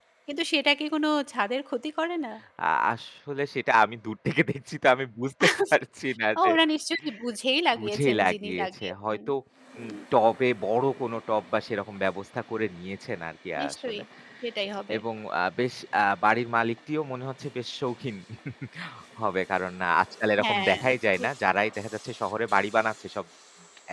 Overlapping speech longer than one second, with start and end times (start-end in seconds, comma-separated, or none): 7.8-9.2